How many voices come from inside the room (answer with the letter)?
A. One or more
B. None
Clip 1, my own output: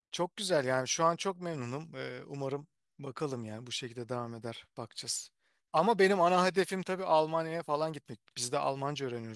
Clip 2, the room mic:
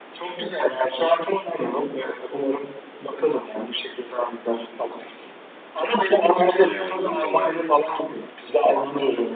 A